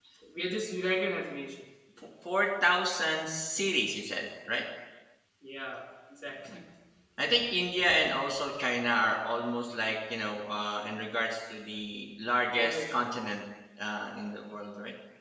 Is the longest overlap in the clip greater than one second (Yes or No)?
No